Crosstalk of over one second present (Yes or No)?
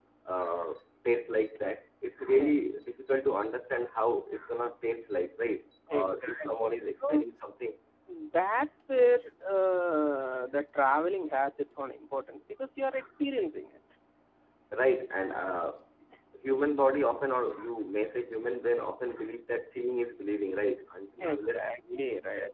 Yes